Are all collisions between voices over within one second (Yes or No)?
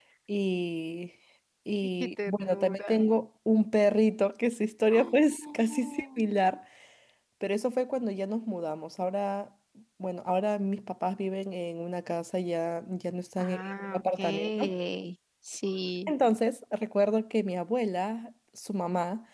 No